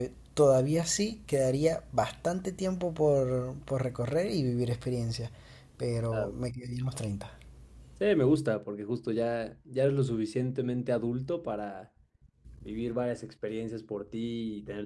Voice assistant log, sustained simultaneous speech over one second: none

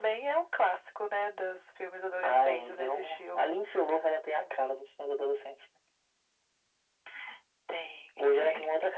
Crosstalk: present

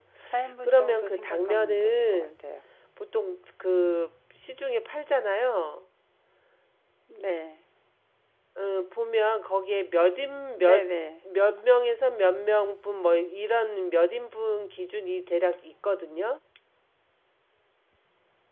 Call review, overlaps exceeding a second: present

